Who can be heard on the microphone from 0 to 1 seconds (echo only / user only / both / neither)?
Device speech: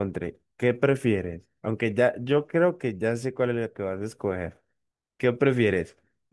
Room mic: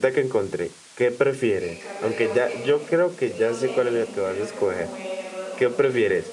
echo only